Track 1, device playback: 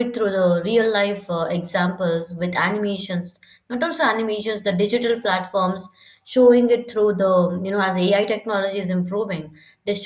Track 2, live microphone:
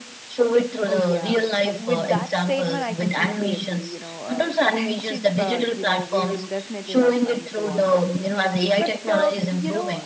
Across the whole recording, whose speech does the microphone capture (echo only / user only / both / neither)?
both